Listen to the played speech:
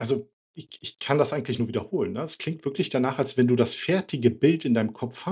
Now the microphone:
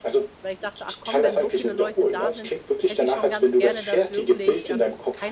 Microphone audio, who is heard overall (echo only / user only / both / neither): both